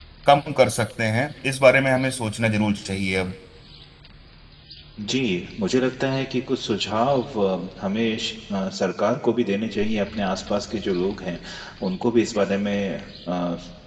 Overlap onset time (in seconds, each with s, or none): none